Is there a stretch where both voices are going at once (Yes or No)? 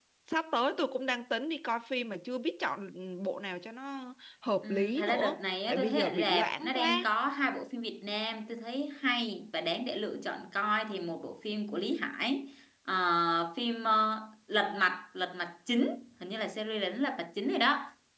Yes